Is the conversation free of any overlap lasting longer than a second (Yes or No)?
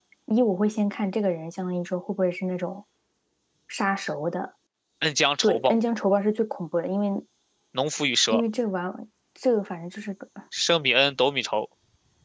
Yes